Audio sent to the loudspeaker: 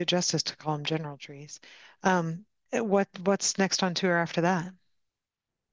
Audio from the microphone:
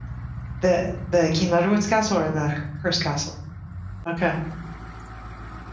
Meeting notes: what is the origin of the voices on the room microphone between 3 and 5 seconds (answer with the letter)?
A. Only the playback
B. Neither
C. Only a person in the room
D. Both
C